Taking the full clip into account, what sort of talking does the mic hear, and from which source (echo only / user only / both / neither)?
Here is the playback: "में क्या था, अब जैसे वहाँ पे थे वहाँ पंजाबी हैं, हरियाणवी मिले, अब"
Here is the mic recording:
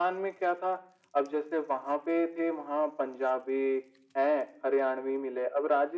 echo only